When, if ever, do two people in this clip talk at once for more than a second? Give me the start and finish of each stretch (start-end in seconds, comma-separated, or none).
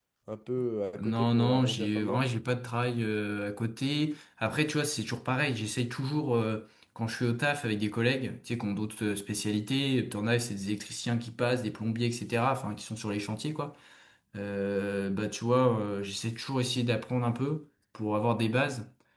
1.0-2.2